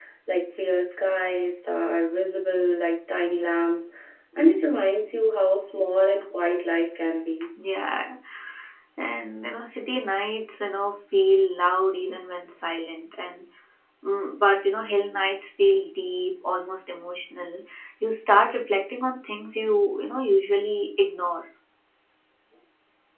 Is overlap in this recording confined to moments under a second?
Yes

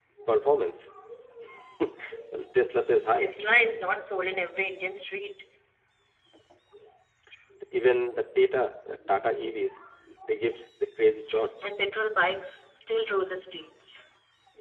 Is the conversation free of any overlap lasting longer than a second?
Yes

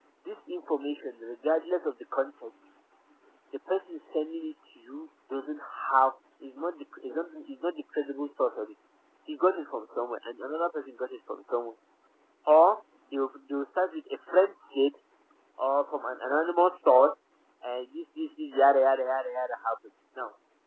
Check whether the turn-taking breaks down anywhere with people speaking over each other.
No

